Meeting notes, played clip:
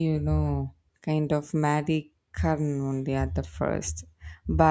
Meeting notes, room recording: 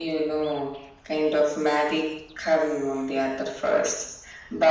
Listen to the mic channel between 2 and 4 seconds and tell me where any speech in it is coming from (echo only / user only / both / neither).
echo only